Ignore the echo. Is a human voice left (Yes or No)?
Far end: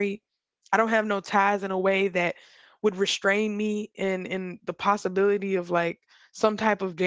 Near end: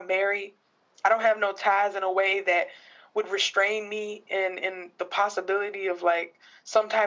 No